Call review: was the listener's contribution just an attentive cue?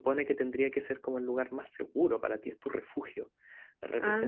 Yes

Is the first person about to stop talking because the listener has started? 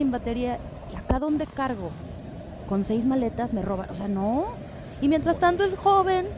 No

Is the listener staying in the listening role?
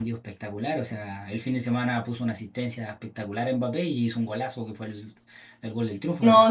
No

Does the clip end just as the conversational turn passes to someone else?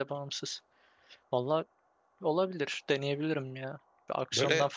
No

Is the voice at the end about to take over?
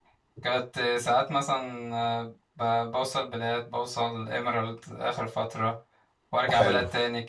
No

